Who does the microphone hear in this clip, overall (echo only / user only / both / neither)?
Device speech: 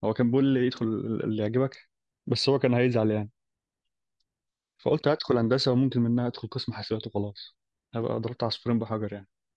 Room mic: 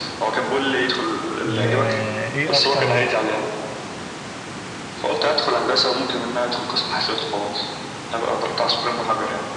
both